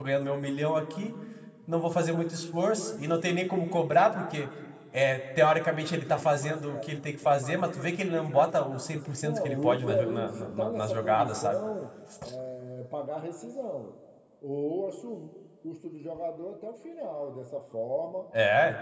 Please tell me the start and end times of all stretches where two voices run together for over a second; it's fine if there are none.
9.2-11.6

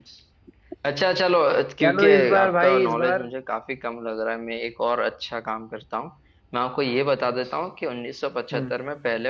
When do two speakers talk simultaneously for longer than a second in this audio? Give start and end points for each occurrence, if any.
1.8-3.3

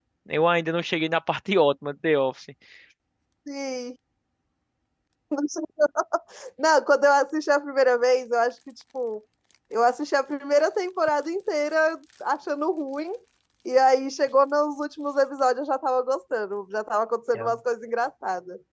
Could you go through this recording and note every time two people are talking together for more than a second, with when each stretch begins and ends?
none

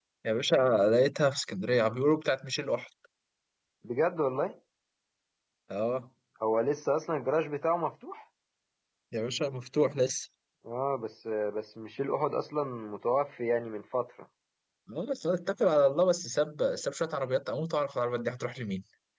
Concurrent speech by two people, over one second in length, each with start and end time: none

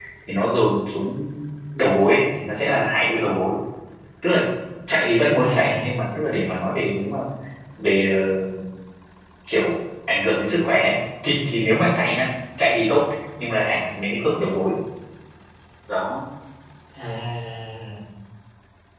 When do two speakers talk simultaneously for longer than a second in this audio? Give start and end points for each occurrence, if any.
none

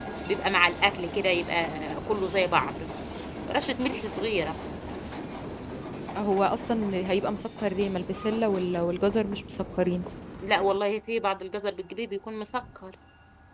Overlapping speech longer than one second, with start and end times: none

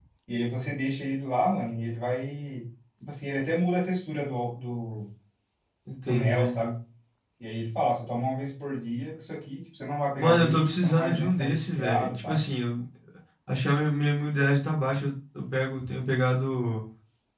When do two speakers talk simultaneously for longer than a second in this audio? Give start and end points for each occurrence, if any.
10.2-12.4

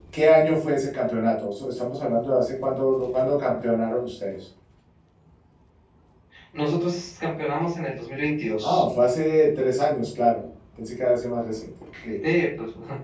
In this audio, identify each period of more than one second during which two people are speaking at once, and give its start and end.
none

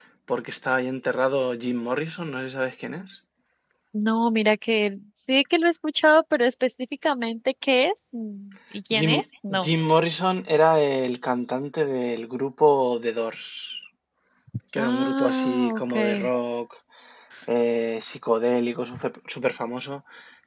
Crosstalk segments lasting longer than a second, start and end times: 14.8-16.3

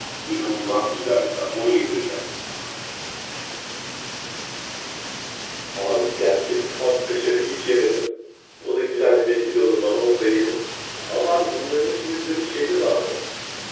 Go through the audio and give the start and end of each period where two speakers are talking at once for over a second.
none

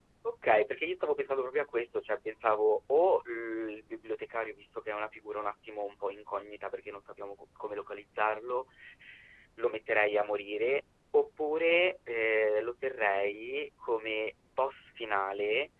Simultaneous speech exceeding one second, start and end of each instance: none

